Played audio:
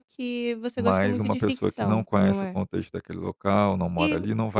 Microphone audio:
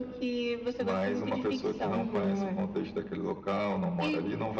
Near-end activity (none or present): present